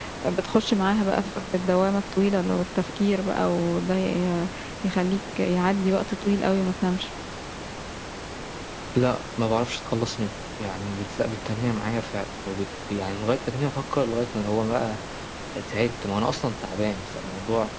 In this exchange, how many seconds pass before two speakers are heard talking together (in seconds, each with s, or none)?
none